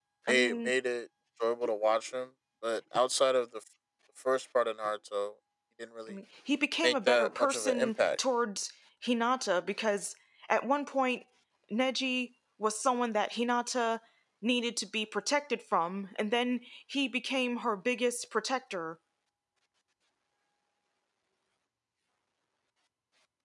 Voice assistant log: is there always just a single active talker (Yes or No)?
No